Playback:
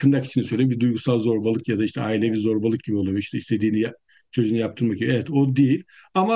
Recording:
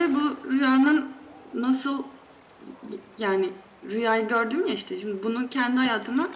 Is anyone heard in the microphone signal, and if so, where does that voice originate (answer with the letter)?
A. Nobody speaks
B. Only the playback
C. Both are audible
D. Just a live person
D